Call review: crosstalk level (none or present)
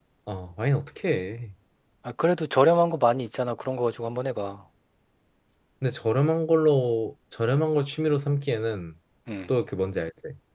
none